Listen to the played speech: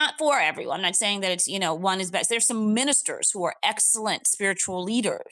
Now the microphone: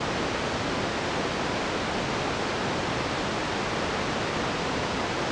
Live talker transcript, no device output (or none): none